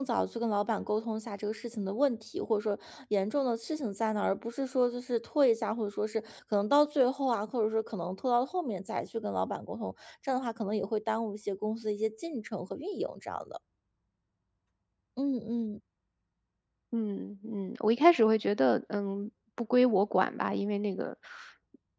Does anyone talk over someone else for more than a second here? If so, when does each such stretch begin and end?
none

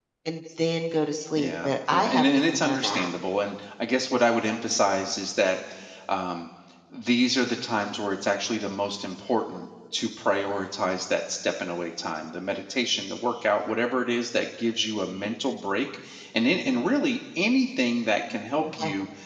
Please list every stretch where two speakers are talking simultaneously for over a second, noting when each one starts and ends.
1.4-3.1

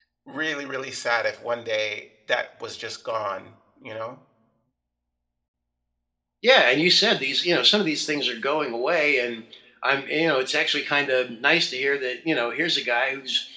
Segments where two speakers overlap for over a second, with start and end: none

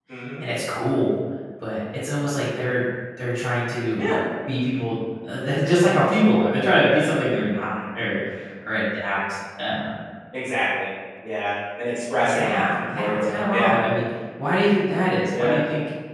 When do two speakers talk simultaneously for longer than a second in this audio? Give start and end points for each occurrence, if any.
12.2-13.7

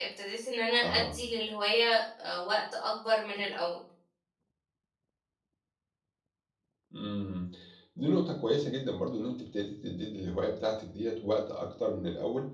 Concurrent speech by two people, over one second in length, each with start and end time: none

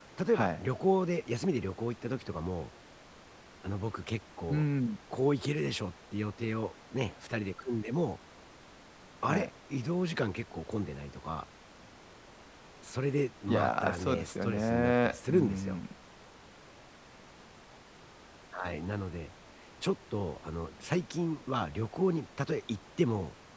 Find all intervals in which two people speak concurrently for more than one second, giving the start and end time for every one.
13.5-15.8

